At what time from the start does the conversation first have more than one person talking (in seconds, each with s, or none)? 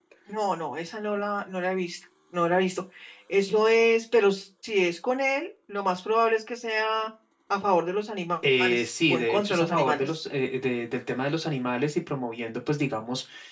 8.4 s